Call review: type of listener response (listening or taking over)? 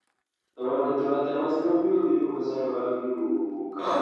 taking over